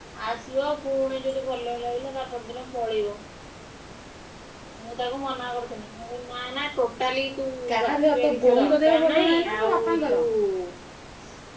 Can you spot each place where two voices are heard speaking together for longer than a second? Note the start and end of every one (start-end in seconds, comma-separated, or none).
7.9-10.1